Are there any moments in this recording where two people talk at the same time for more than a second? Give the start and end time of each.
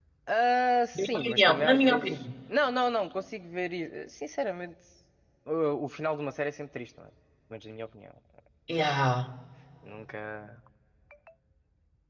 0.9-2.2

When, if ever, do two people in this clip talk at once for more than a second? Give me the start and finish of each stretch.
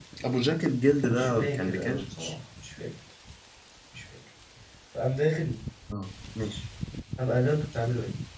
1.0-2.4

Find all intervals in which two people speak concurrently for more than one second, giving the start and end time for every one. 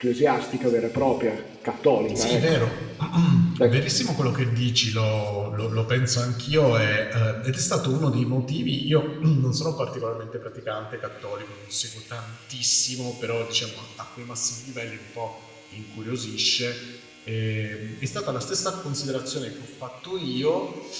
none

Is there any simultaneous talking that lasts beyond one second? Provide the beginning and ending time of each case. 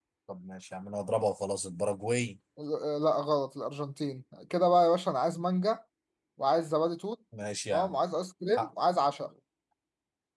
none

